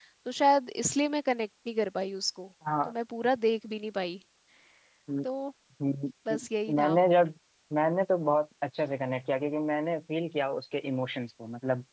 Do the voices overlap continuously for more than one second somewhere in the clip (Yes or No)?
No